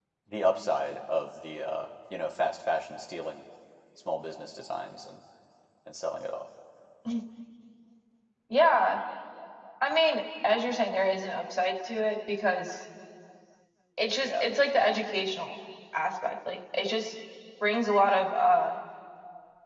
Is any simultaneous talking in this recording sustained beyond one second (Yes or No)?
No